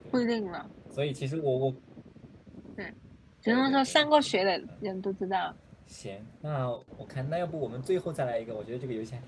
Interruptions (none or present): present